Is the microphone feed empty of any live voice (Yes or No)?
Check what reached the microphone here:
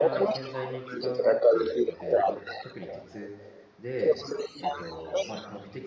No